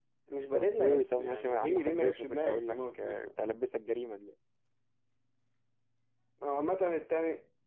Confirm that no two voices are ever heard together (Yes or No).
No